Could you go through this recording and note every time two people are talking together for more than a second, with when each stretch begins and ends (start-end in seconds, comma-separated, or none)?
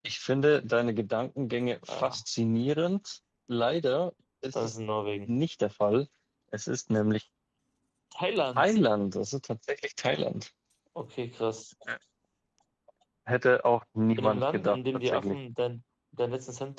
14.1-15.4